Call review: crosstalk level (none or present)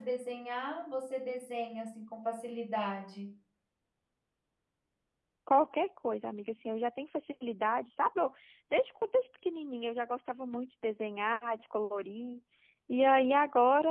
none